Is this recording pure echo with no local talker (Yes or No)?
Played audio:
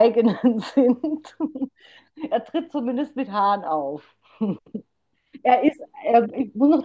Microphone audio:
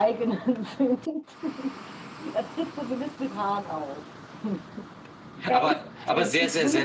No